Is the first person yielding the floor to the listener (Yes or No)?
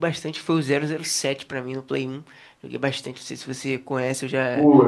Yes